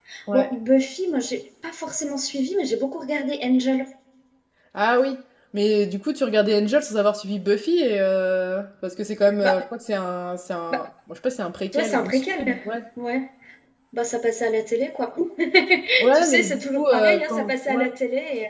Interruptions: present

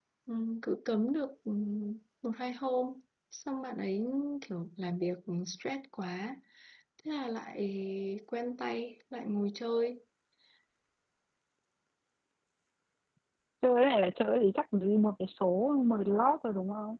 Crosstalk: none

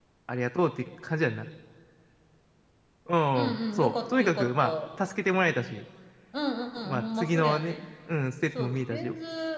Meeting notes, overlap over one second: present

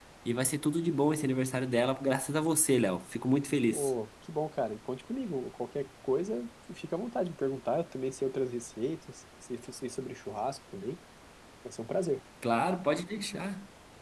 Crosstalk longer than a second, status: none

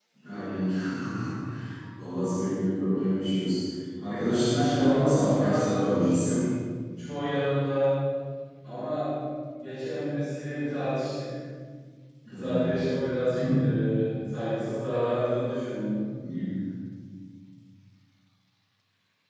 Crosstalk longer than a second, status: present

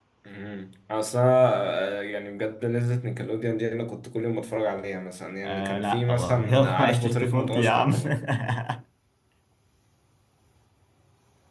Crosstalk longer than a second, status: present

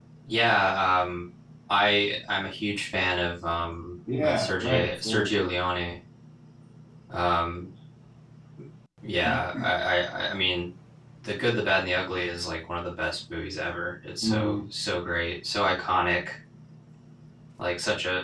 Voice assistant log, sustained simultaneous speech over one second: present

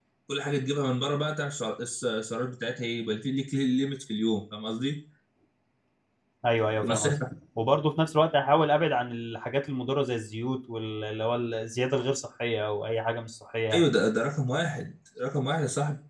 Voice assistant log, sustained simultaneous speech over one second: none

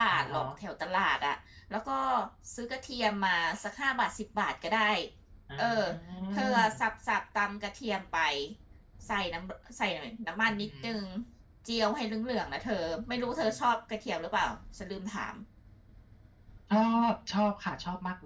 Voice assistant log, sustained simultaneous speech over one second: none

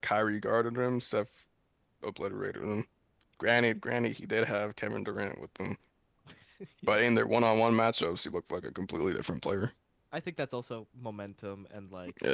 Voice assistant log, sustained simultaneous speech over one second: none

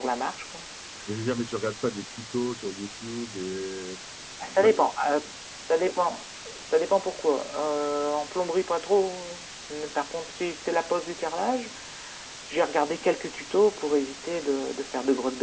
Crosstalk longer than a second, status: none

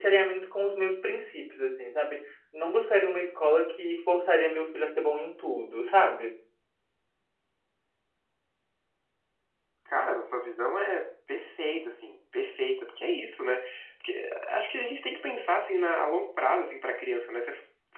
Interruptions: none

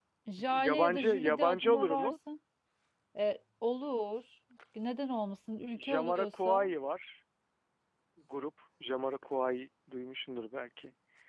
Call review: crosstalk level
present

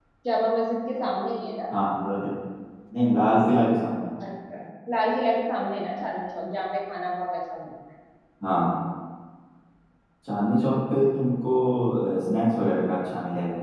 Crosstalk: none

